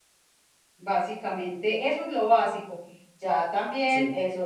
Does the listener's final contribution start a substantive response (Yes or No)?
No